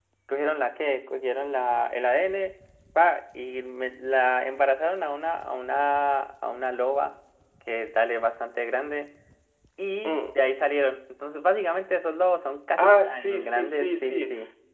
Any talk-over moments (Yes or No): Yes